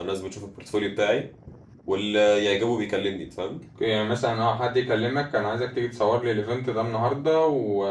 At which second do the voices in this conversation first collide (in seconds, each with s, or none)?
none